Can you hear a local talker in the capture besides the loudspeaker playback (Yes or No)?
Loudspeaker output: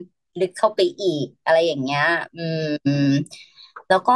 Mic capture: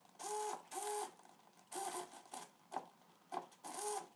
No